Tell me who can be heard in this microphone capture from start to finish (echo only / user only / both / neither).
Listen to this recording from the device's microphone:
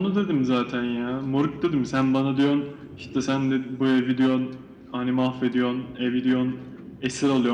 echo only